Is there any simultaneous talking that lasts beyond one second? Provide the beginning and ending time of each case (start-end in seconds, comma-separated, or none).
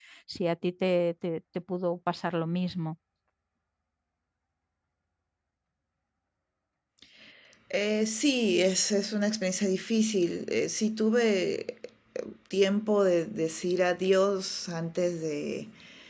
none